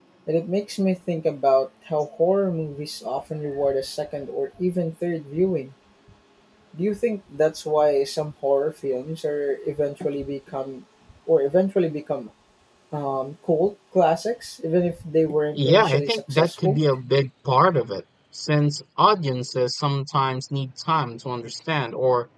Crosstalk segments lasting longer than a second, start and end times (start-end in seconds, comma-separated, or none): 15.6-16.8